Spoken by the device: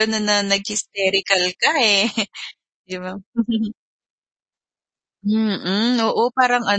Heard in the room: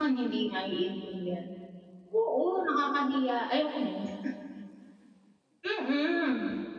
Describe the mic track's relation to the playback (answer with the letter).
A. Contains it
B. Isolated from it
B